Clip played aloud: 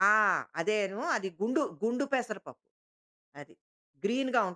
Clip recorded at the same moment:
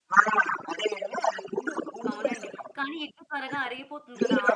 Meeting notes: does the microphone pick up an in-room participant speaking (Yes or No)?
Yes